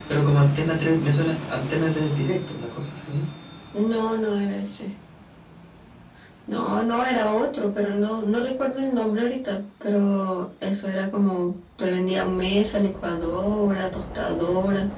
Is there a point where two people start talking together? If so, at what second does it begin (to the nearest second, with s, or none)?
none